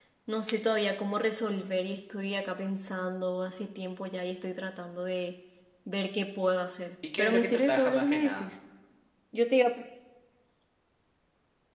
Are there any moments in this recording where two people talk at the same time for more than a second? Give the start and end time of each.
7.2-8.5

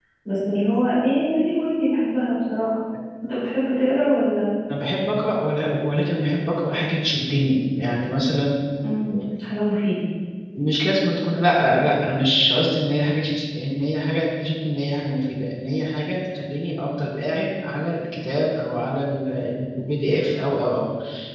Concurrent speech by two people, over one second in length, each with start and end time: none

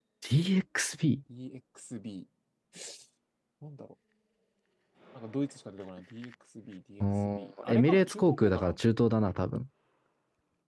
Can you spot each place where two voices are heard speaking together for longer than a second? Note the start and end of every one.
7.0-8.8

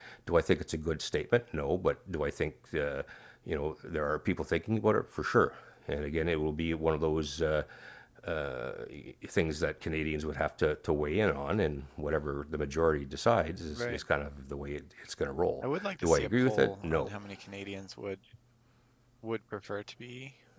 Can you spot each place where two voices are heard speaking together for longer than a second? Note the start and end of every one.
15.8-17.1

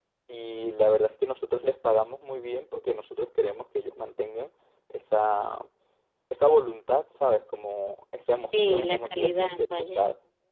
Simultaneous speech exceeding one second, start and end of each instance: 8.5-10.0

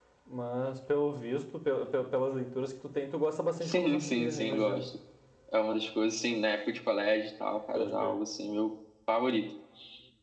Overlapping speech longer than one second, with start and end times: 3.6-4.8

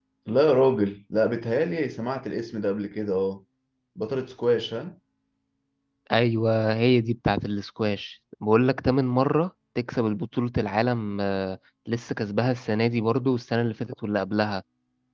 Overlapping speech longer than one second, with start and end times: none

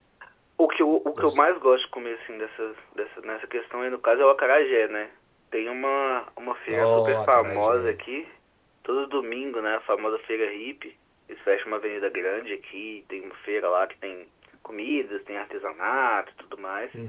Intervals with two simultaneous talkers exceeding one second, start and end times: 6.7-8.0

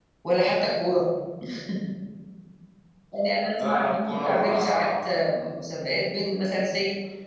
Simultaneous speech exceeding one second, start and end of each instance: 3.6-5.0

